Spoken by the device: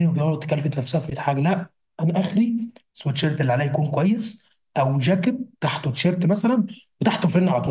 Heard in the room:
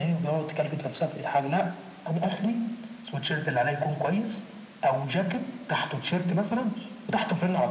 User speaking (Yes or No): No